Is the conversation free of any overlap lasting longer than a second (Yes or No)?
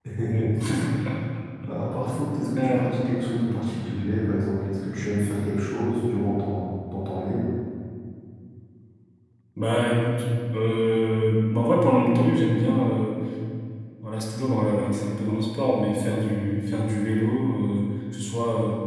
Yes